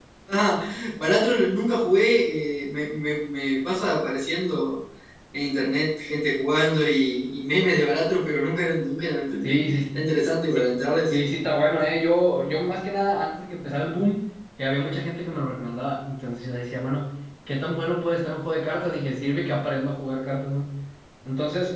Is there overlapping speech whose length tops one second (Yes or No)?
Yes